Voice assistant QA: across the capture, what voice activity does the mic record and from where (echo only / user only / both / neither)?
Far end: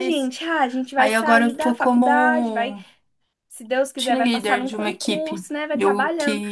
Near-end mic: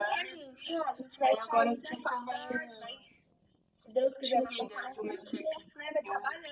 echo only